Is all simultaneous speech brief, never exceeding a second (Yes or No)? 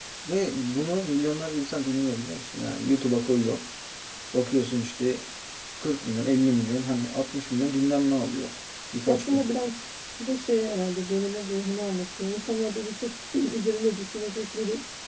Yes